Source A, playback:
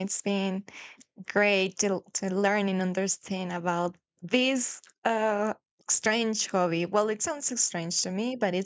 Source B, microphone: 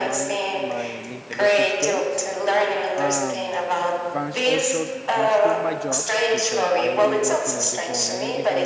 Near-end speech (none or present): present